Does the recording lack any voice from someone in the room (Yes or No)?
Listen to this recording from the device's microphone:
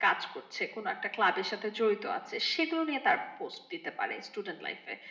Yes